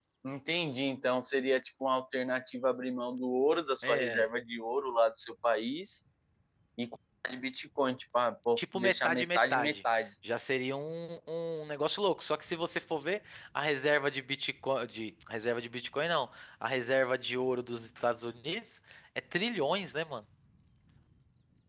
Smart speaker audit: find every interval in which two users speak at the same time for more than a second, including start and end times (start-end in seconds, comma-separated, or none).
8.6-10.1